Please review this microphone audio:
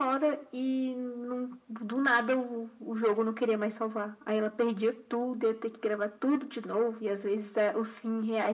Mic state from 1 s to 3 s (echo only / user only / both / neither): echo only